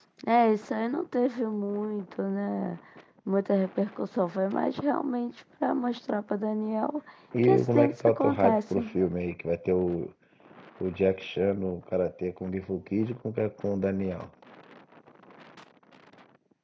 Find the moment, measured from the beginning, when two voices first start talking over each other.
7.4 s

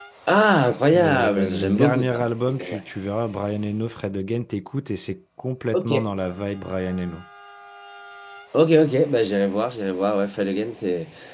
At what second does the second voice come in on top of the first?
0.9 s

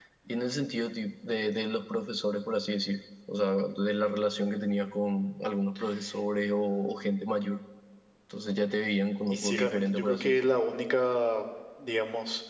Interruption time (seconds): 9.3 s

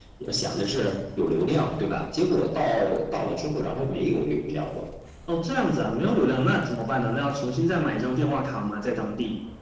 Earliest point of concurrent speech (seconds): none

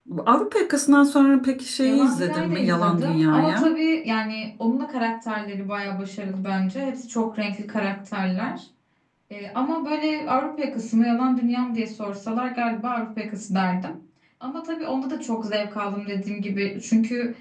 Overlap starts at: 1.8 s

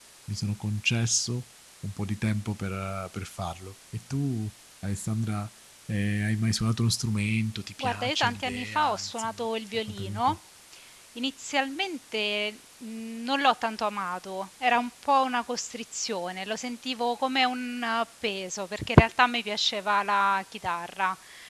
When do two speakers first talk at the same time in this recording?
7.8 s

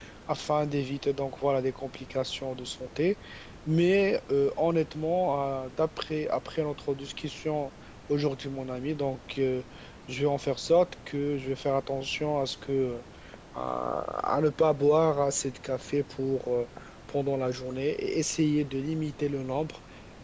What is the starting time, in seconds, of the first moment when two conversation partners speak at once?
none

